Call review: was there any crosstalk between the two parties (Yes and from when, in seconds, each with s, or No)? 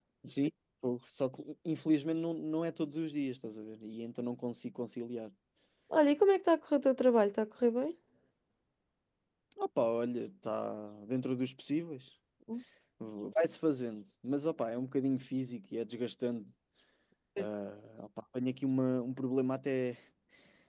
No